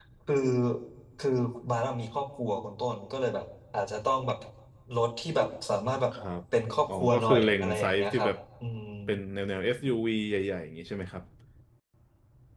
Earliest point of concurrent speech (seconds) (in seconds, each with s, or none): 6.9 s